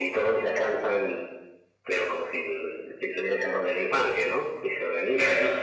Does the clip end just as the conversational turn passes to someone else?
No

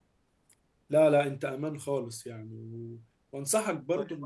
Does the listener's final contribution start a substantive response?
No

